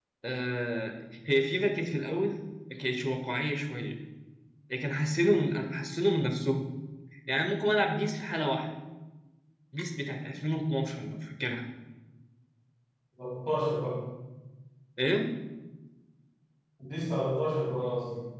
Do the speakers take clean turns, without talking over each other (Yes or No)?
Yes